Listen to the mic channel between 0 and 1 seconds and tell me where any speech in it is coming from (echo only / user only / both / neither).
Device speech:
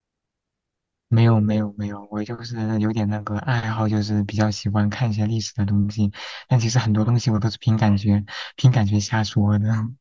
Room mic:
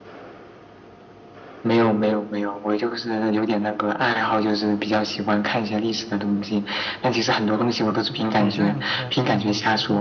neither